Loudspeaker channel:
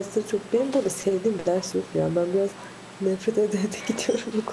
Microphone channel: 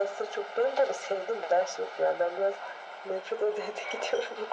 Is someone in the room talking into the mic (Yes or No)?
No